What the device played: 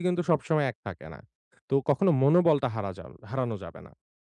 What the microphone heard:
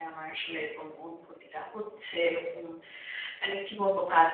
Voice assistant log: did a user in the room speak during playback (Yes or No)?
Yes